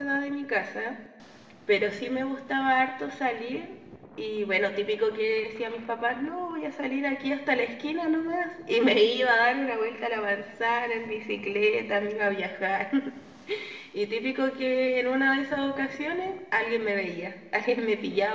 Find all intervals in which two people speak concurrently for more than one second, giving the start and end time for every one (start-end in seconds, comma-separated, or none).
none